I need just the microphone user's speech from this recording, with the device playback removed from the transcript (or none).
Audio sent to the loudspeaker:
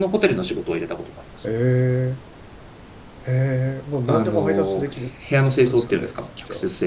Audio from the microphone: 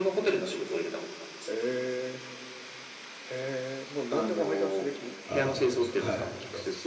ああ、はい。